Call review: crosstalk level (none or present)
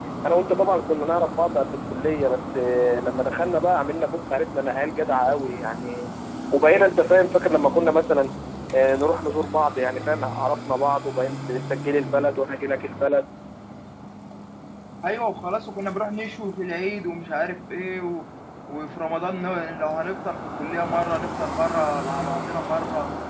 none